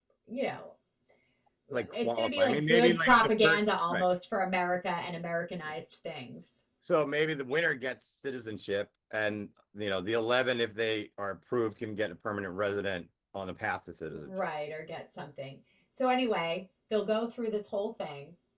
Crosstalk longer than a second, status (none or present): present